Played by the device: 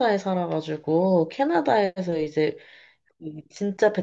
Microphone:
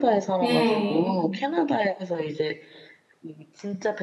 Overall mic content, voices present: both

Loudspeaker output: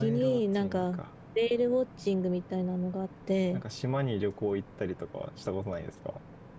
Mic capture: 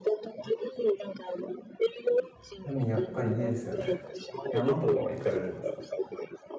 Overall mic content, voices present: both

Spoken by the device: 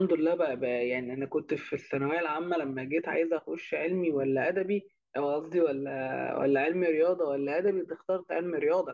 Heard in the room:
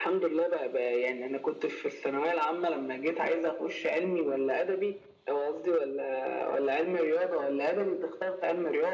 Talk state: echo only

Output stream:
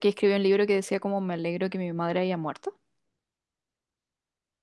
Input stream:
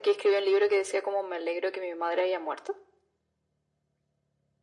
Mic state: echo only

